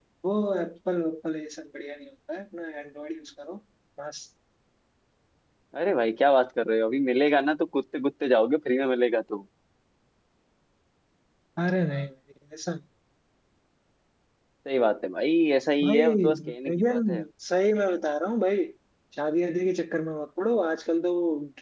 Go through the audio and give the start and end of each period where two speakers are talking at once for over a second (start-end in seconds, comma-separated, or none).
15.8-17.2